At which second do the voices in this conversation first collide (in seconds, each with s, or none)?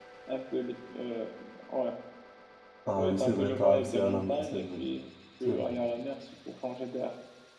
3.0 s